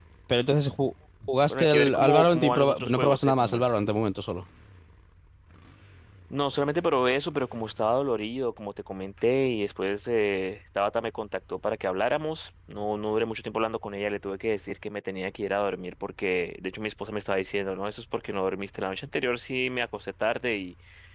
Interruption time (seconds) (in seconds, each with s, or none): 1.5 s